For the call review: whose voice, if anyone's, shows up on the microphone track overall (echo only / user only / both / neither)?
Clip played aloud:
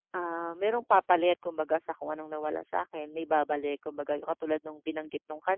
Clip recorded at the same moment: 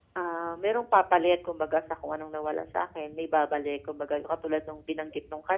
echo only